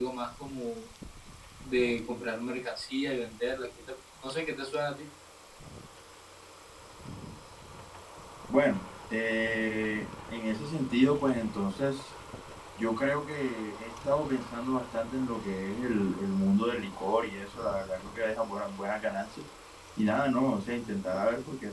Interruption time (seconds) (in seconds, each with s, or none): none